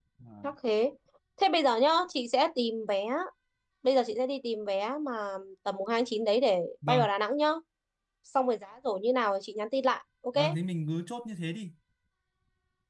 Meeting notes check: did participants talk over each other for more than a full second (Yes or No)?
No